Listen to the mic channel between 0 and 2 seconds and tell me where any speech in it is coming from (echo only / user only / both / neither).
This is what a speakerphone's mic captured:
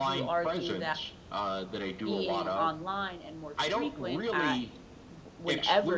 both